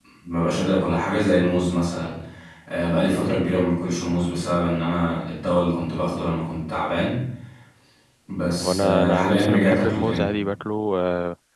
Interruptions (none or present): present